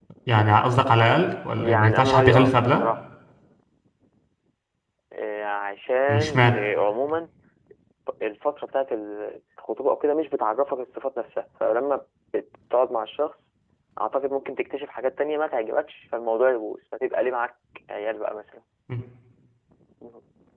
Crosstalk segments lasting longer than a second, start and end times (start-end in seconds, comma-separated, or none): 1.6-2.8